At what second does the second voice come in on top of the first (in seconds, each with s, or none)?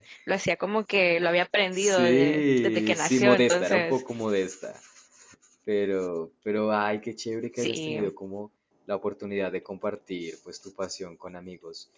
1.7 s